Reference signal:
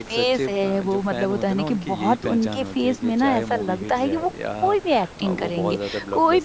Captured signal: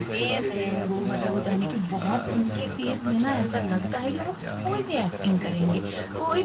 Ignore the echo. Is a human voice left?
Yes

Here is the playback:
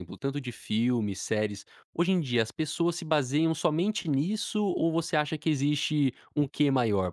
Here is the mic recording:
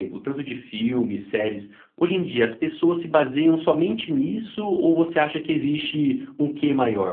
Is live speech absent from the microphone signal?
Yes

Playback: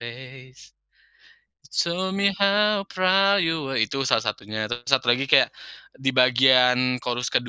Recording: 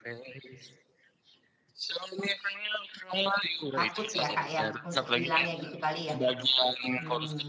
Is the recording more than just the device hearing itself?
Yes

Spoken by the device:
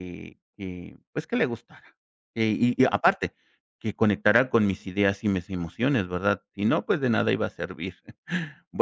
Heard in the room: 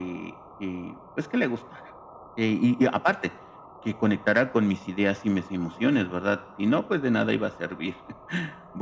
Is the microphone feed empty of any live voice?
Yes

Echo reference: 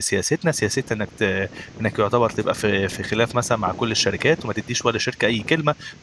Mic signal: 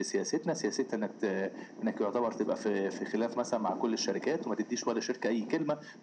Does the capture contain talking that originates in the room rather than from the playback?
No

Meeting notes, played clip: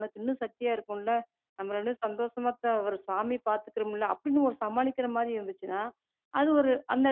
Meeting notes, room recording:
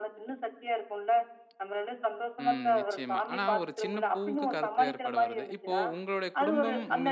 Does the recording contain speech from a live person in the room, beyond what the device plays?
Yes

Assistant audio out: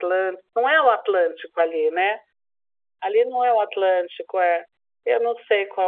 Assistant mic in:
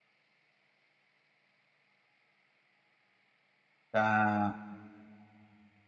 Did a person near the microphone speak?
Yes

